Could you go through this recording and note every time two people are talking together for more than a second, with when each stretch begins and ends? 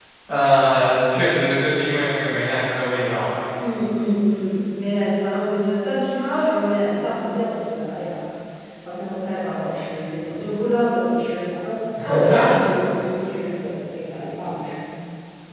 none

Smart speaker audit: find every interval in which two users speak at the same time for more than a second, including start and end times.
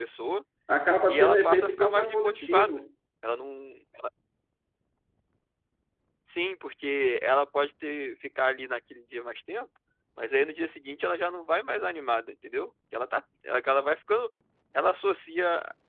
1.1-2.8

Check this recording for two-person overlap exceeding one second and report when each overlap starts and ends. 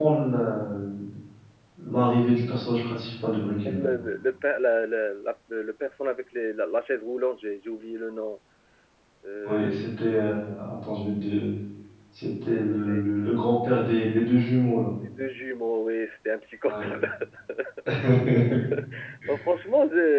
none

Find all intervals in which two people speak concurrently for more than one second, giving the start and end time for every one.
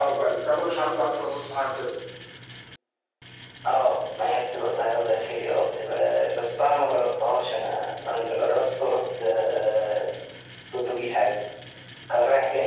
none

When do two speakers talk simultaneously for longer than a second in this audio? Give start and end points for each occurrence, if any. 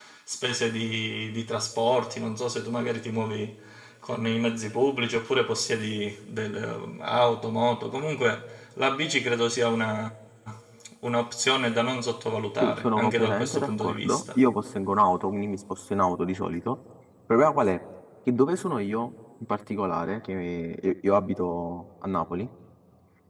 12.6-14.4

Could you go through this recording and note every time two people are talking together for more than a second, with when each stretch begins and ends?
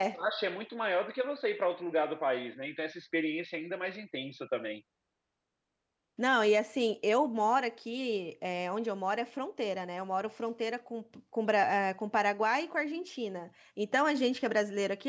none

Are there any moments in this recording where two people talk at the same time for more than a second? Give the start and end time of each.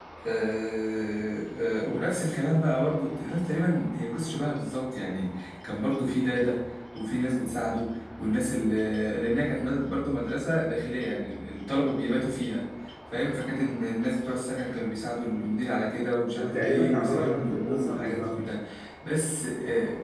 16.4-18.4

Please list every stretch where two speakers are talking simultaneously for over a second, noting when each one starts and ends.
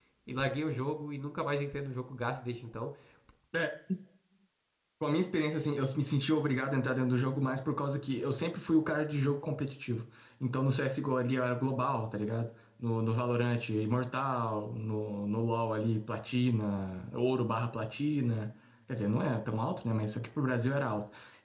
none

